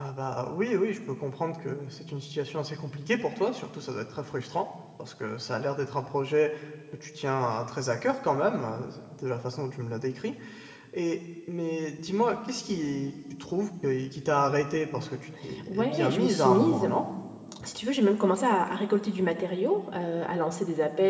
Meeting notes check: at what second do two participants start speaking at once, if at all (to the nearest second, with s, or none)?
16 s